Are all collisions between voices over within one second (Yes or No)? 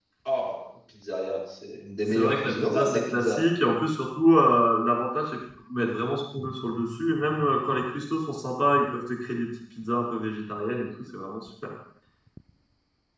No